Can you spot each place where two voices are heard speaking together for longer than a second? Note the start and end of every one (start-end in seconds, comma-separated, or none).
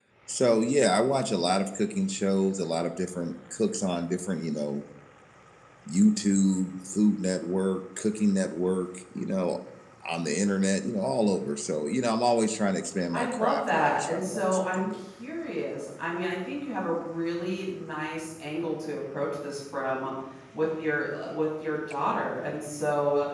13.1-15.0